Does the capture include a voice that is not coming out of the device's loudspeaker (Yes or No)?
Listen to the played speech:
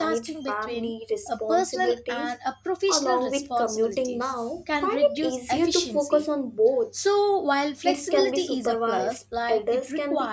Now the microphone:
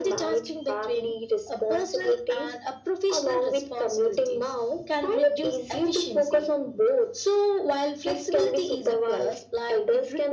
No